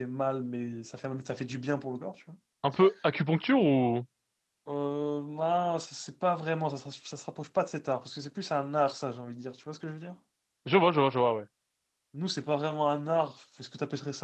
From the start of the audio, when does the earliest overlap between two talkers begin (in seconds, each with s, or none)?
none